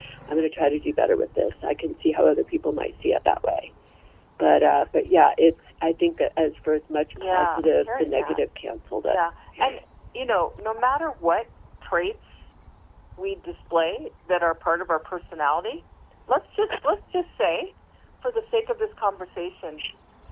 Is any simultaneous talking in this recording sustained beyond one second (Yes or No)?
Yes